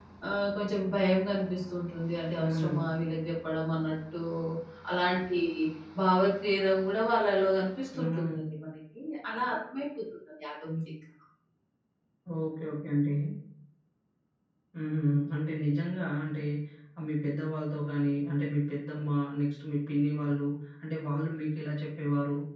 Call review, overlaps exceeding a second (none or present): none